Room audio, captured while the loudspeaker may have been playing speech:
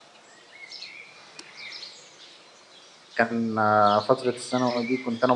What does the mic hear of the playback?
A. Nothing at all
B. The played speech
A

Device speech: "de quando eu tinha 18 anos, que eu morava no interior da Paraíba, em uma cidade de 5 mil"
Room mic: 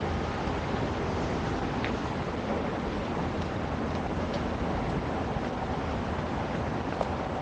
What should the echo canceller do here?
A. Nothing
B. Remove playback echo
A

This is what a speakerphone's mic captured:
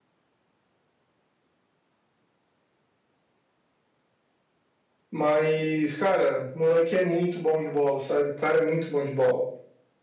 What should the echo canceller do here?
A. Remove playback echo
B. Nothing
B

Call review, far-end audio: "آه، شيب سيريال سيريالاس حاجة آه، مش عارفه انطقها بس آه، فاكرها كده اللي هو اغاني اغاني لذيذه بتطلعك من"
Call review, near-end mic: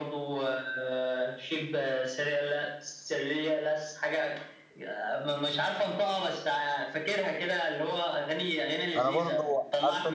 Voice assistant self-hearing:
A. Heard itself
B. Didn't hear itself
A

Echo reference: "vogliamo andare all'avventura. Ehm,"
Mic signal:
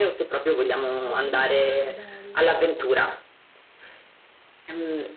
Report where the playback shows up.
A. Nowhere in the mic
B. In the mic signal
B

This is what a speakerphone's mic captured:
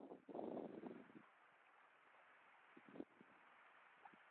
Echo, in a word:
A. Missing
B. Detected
A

